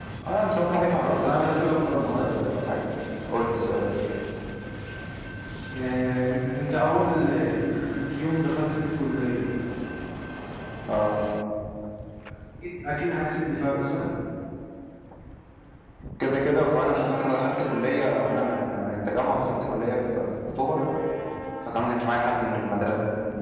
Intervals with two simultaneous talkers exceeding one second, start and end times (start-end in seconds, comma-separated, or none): 1.1-2.4